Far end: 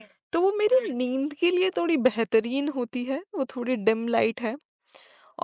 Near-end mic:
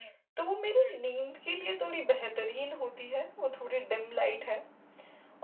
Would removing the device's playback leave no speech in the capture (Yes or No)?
Yes